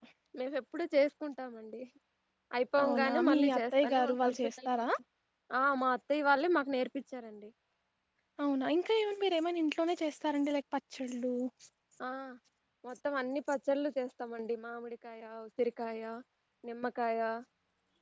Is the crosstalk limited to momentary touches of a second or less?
No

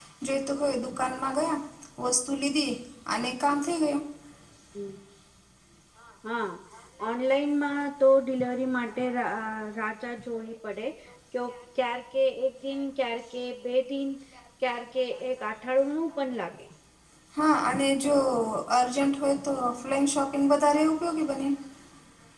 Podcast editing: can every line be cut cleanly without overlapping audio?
Yes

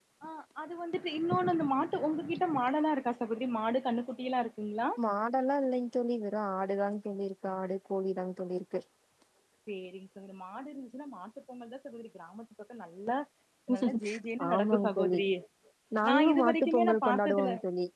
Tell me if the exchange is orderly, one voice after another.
No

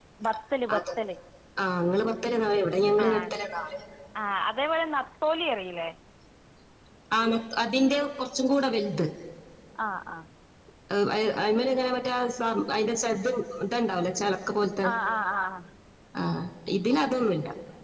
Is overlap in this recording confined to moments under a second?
Yes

